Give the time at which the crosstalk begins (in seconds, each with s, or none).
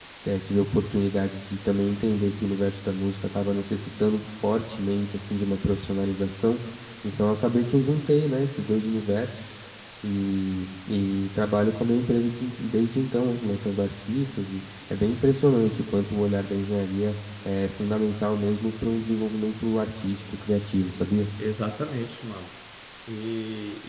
none